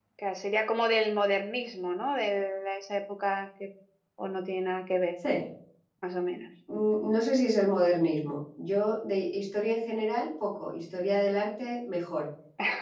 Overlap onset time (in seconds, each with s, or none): none